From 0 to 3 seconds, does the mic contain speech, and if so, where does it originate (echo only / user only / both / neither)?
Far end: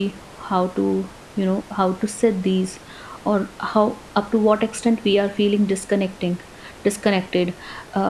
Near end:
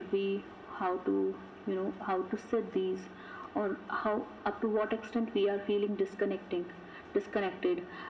echo only